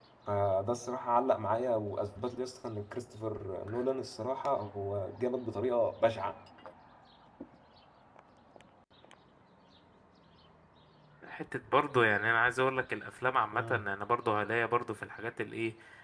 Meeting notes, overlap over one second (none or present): none